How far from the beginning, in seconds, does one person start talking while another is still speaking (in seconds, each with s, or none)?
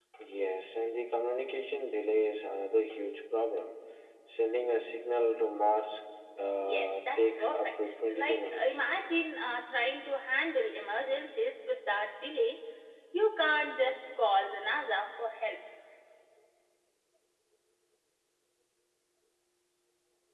6.6 s